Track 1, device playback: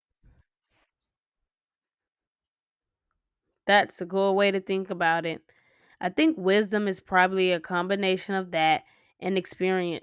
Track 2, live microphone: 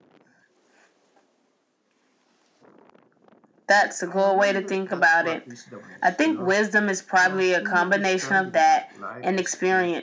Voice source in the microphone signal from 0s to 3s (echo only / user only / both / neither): neither